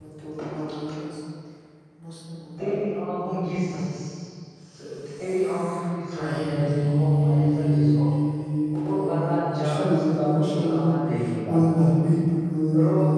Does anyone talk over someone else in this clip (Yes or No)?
Yes